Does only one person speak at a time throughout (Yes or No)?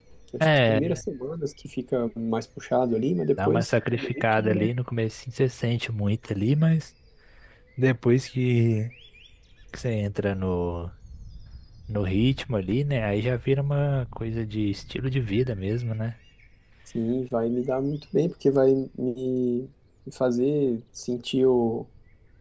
No